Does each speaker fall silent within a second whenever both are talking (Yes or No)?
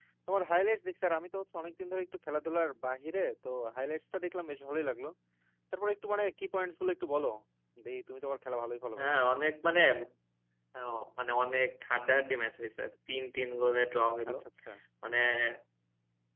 Yes